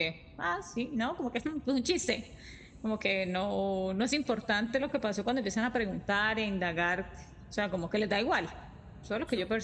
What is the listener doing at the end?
taking over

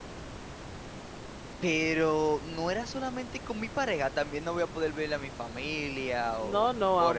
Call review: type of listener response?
taking over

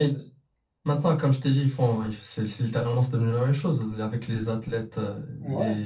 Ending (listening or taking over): listening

